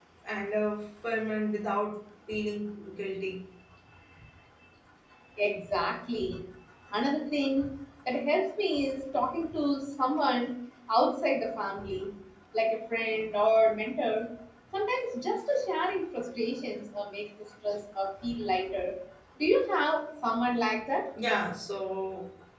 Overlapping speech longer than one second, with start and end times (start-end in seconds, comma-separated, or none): none